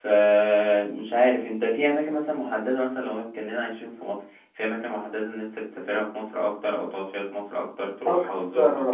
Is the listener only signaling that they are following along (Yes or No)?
No